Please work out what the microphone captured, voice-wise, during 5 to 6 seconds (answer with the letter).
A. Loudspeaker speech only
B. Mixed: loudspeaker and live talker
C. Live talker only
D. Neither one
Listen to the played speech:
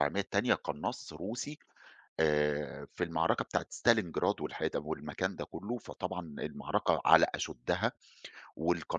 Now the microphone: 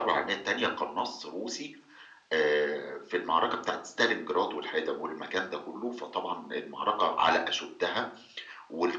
A